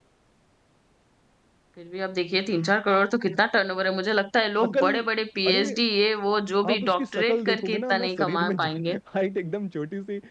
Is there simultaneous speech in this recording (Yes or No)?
Yes